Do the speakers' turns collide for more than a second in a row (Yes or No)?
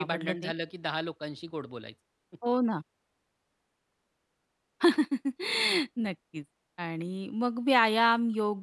No